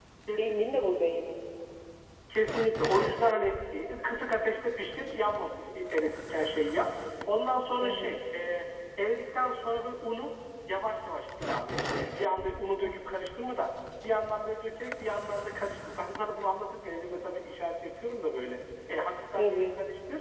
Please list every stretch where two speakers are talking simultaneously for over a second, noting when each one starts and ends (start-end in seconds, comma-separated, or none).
none